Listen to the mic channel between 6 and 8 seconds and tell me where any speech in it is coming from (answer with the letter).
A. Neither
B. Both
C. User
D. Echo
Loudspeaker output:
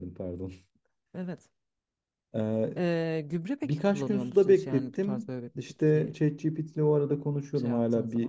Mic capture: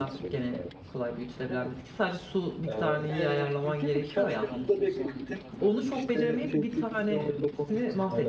B